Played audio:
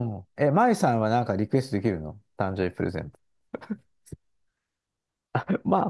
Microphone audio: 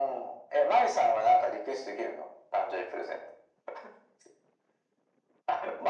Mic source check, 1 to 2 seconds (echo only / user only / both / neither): echo only